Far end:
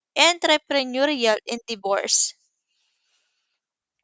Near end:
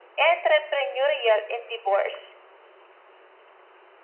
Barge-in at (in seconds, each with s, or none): none